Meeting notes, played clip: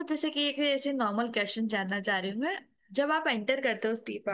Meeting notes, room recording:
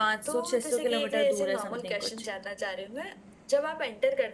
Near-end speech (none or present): present